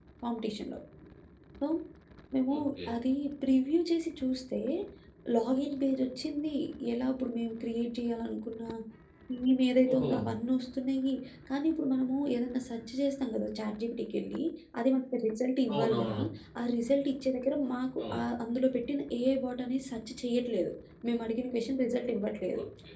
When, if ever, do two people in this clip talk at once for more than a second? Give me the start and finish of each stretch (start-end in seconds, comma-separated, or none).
none